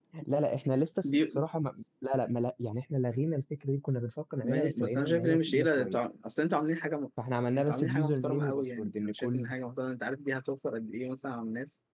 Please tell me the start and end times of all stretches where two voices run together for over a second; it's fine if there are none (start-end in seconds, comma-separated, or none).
4.4-6.0, 7.6-9.5